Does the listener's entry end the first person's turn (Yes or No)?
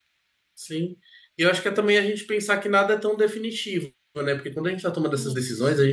No